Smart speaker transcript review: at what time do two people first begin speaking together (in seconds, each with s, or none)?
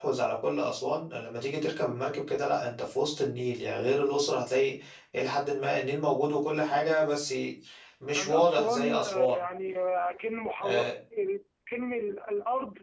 8.1 s